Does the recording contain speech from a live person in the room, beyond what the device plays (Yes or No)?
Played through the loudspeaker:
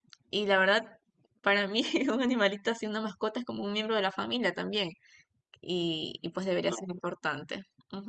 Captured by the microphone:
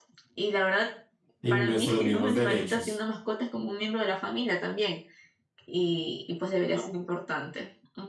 Yes